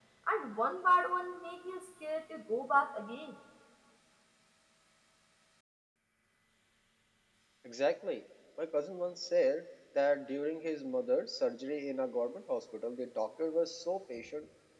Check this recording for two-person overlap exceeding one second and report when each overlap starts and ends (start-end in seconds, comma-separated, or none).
none